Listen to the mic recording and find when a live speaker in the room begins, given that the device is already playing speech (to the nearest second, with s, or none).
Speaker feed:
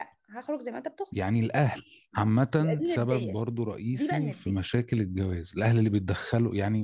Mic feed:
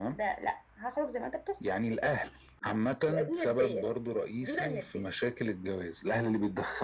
none